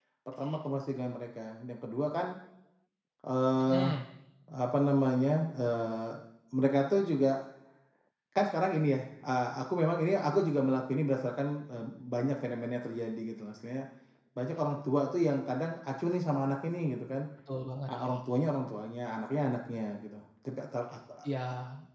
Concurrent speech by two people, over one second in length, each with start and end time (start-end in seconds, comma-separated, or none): none